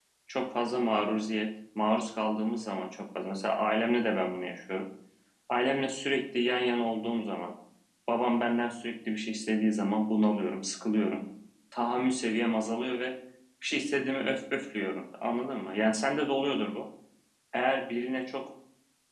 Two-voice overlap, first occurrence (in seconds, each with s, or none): none